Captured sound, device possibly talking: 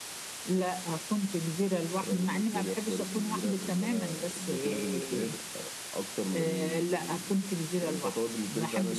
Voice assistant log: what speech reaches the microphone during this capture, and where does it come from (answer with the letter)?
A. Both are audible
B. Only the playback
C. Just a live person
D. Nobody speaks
B